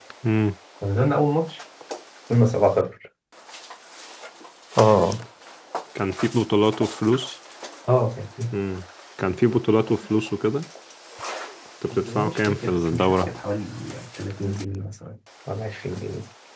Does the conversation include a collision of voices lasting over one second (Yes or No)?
Yes